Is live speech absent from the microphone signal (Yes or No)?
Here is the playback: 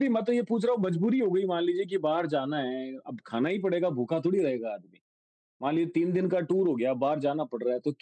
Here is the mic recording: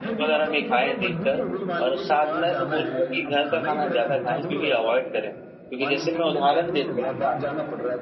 No